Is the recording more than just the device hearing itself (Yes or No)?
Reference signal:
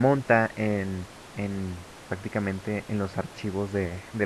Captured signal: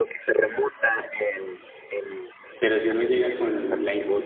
Yes